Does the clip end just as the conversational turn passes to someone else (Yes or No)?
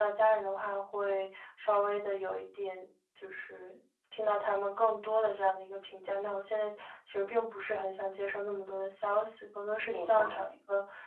No